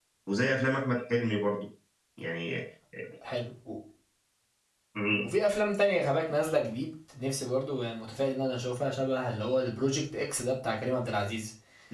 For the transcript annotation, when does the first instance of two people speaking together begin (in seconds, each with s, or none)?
none